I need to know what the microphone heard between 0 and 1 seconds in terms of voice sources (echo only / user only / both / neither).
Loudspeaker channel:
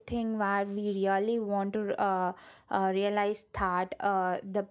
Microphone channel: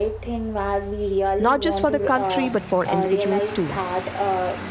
echo only